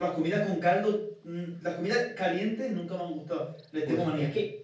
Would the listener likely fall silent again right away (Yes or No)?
No